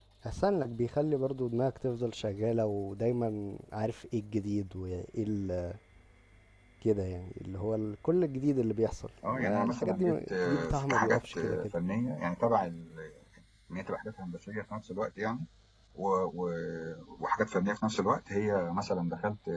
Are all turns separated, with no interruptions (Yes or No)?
No